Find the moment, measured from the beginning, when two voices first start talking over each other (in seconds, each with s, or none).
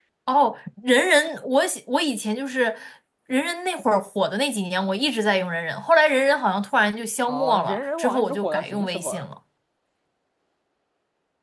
7.3 s